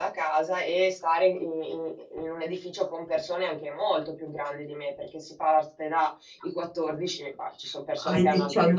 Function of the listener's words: taking over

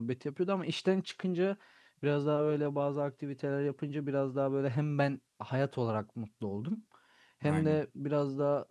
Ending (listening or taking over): listening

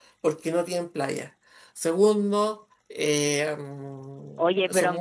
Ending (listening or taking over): taking over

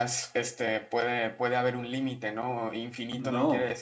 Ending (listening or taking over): listening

